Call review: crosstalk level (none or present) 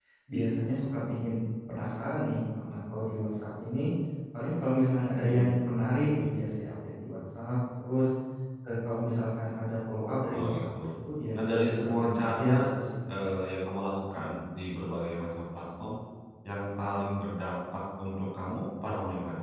present